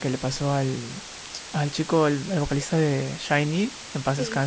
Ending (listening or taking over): taking over